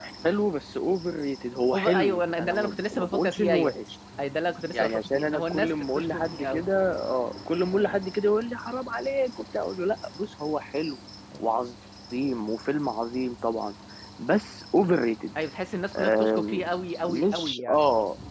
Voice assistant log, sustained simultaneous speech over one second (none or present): present